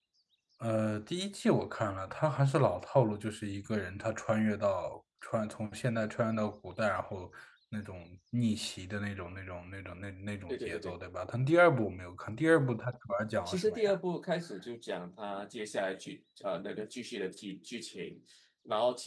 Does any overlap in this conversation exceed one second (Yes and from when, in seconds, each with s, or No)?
No